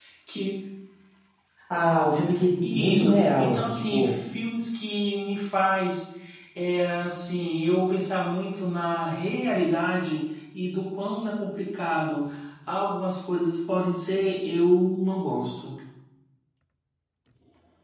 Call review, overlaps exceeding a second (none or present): present